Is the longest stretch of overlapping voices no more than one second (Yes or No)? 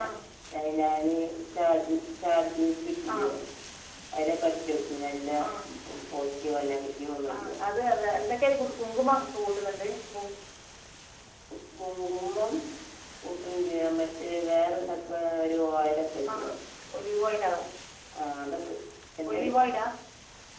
Yes